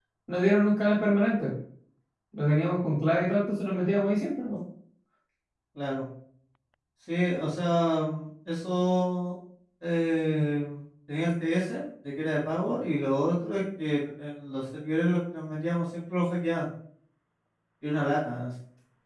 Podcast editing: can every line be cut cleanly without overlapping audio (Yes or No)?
Yes